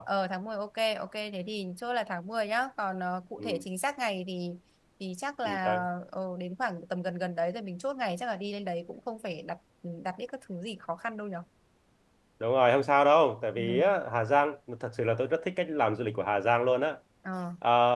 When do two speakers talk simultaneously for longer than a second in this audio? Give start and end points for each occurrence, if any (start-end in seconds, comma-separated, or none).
none